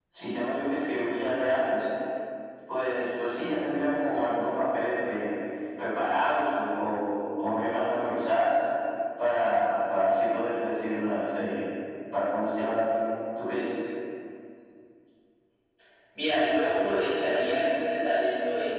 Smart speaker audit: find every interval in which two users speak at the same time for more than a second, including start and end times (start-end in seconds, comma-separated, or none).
none